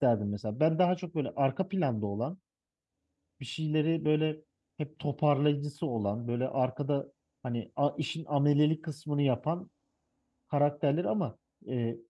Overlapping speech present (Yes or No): No